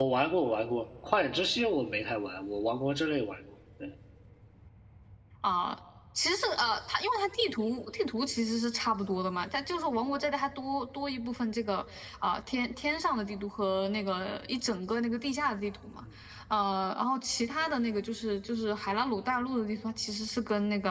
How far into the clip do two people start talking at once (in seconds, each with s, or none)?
none